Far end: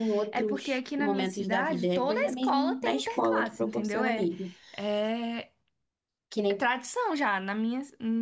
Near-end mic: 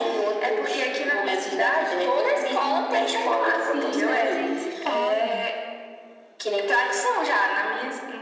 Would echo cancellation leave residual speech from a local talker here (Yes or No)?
Yes